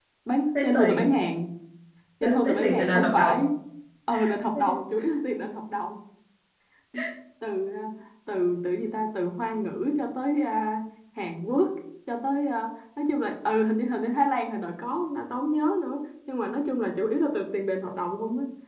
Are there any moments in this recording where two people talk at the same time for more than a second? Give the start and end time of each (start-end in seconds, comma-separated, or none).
2.2-3.4